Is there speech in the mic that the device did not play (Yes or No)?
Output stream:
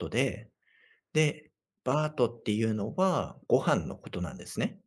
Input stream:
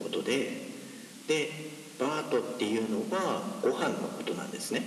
No